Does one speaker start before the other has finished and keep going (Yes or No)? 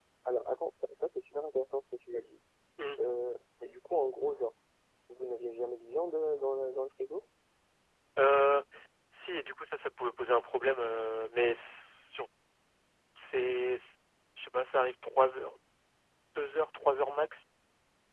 No